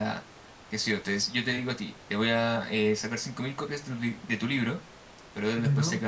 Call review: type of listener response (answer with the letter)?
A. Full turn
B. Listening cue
B